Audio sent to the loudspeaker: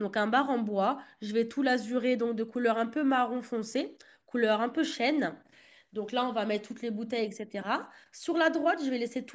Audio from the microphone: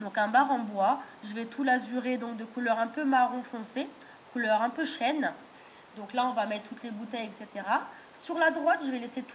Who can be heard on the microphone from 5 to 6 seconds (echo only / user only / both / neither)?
echo only